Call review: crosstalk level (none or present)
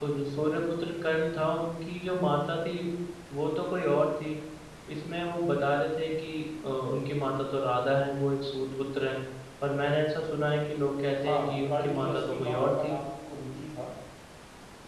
present